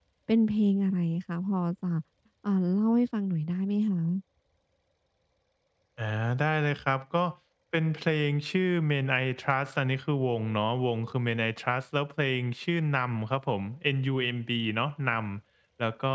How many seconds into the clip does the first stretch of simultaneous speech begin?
none

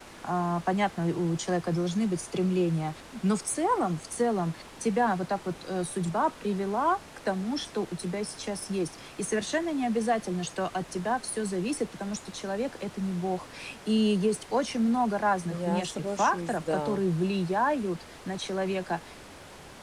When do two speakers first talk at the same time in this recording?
15.5 s

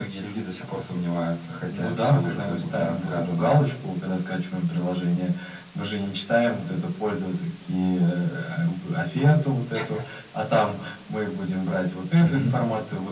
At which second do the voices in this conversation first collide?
1.7 s

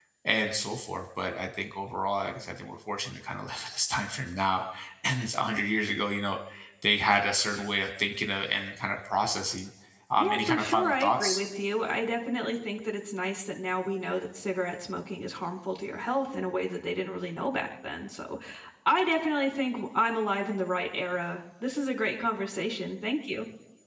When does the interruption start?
10.2 s

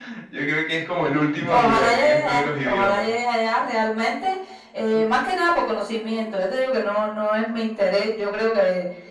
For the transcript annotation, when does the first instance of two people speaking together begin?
1.5 s

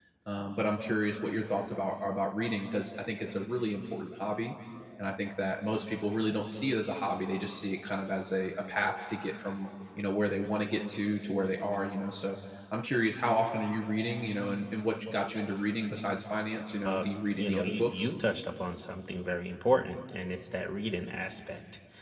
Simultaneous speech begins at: 16.9 s

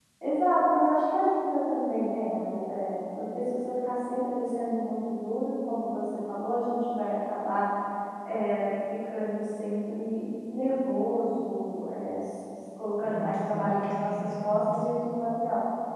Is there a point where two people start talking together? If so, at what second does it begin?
13.0 s

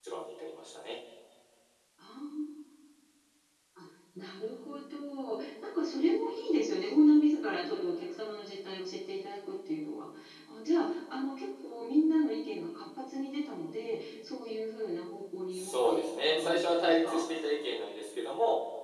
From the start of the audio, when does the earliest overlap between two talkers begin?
15.5 s

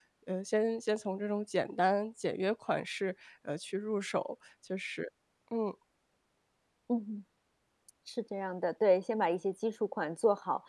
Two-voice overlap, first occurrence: none

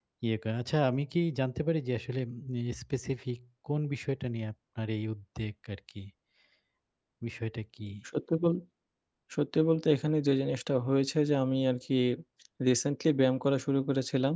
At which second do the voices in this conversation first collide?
none

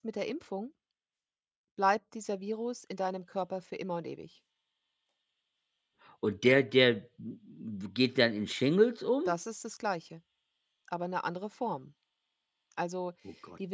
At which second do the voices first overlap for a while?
none

